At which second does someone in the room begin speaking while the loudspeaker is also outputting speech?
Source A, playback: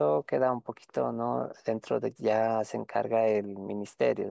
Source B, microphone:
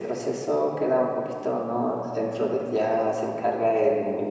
none

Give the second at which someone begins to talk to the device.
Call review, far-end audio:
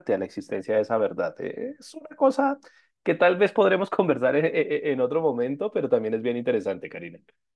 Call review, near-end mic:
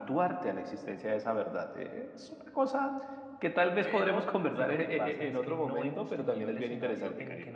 4 s

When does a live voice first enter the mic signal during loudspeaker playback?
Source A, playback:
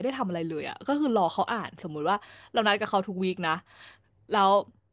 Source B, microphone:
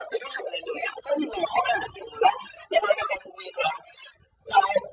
none

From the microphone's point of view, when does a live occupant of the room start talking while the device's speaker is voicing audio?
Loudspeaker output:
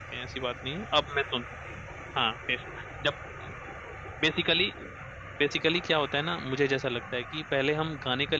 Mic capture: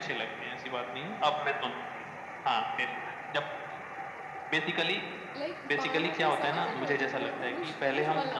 5 s

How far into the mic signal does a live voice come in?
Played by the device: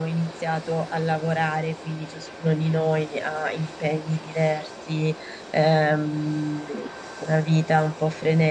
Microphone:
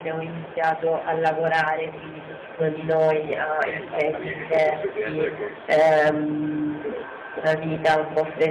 4 s

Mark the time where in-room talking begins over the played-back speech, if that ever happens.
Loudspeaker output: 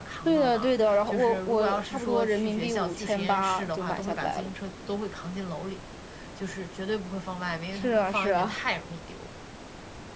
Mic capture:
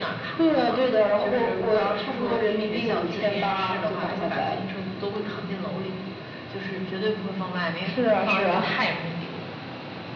none

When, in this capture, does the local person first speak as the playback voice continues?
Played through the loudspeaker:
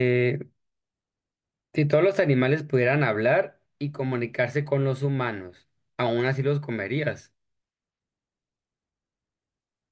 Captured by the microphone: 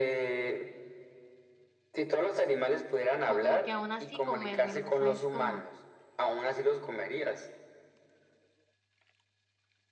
3 s

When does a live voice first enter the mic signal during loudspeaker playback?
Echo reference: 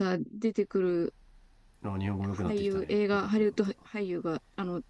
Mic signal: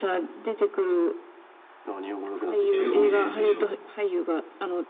3 s

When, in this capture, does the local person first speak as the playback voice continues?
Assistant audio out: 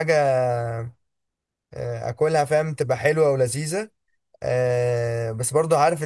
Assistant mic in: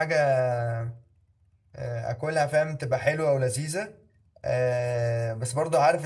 none

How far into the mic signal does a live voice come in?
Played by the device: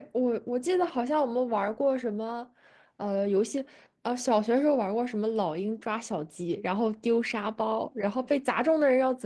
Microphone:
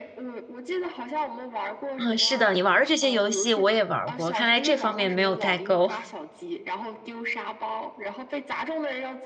2 s

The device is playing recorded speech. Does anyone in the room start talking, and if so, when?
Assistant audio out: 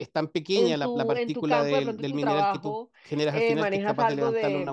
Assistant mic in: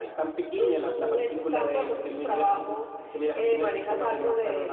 none

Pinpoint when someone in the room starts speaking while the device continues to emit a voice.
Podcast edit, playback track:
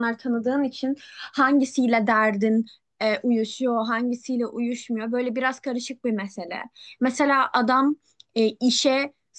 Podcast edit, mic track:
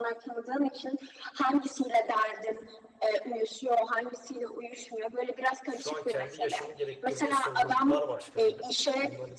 6 s

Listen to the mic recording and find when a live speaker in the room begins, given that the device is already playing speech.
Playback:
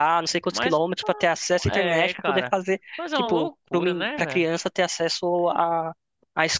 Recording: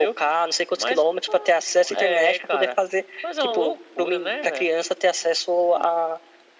none

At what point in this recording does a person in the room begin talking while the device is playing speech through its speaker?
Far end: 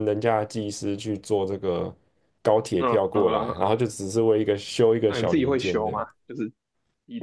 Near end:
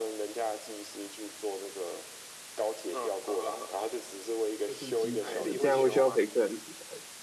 5 s

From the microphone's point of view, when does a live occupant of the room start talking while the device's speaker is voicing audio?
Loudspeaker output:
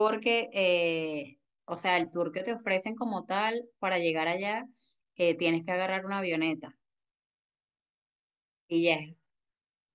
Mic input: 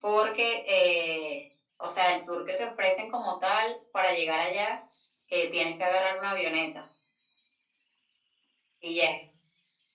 none

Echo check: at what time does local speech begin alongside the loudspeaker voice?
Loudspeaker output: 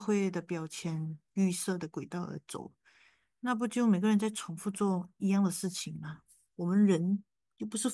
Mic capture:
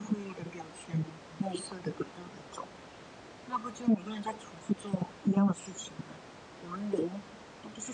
none

